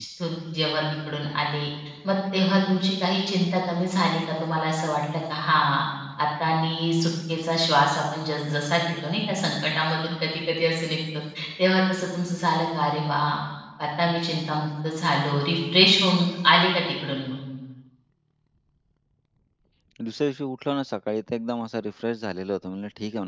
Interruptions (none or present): none